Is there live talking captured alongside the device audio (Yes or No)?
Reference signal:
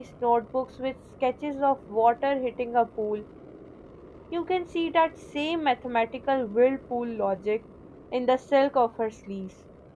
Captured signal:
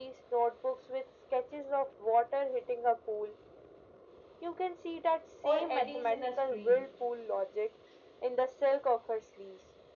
Yes